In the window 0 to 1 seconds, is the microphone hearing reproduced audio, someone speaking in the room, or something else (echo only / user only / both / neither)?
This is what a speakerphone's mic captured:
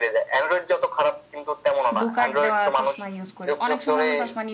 echo only